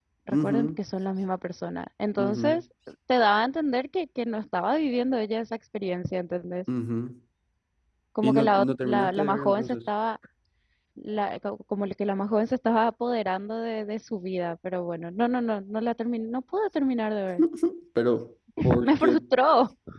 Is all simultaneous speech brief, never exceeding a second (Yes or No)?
No